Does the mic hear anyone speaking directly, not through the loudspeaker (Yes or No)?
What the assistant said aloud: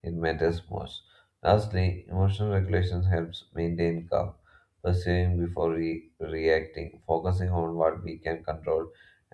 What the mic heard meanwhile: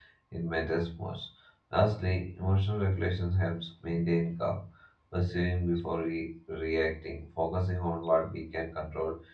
No